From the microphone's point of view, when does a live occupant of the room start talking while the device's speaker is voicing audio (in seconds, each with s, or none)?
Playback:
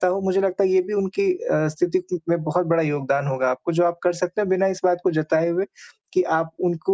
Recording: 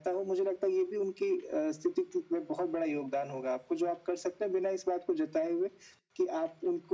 none